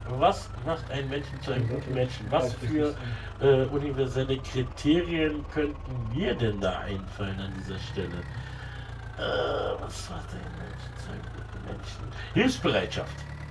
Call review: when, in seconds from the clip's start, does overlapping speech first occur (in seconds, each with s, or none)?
1.5 s